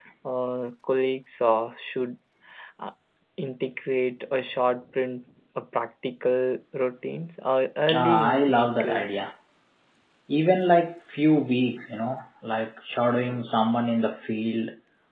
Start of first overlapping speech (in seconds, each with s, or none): 7.9 s